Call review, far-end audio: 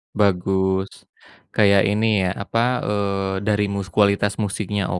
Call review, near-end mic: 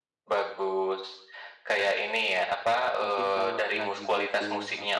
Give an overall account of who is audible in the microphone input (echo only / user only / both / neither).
both